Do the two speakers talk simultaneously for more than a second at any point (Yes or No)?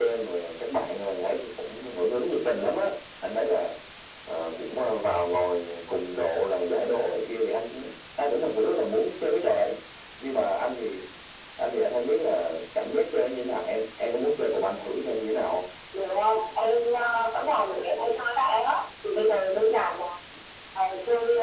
No